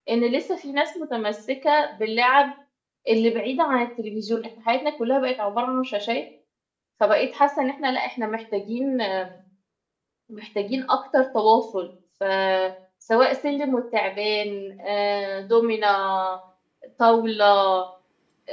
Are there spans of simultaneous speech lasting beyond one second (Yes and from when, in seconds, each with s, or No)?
No